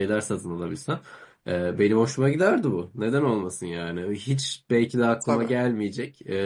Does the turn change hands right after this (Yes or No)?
No